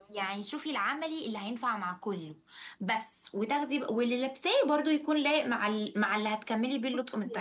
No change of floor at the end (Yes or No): No